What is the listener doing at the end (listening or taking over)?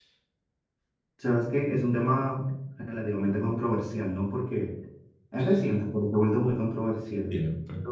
taking over